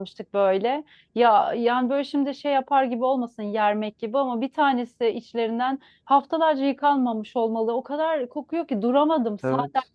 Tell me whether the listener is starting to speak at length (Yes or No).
No